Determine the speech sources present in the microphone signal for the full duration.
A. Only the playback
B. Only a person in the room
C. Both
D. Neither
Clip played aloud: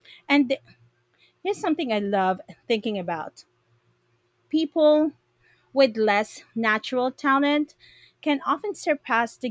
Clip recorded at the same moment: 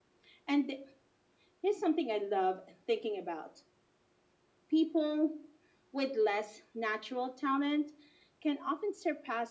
A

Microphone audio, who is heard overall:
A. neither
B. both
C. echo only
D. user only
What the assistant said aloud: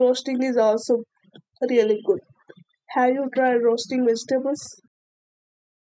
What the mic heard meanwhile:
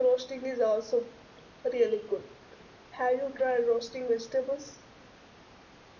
C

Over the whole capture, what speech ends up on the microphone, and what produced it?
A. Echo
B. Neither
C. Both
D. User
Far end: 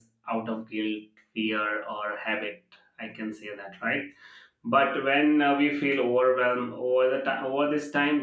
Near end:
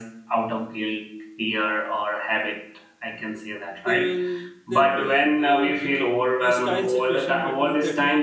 C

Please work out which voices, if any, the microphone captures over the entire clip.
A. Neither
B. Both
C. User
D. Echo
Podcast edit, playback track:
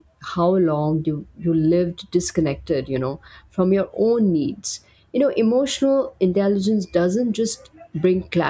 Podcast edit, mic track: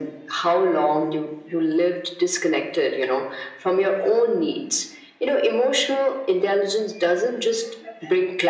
D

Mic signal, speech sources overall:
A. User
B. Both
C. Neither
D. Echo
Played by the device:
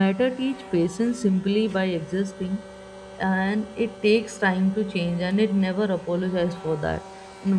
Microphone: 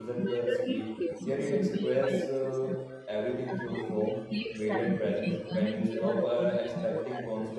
B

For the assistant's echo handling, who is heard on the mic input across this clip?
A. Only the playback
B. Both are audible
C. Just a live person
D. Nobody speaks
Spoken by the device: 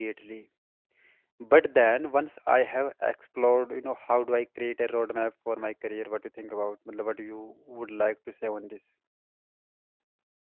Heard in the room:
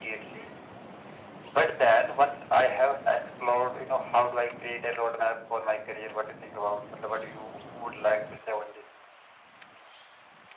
A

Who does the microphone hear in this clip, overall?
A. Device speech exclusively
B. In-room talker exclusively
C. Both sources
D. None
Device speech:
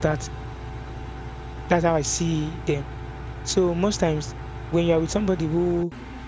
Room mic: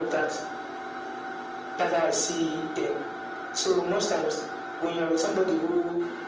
A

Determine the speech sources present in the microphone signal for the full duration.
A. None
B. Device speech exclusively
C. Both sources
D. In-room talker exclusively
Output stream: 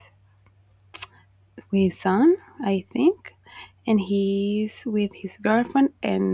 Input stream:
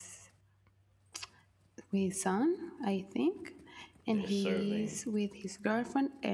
C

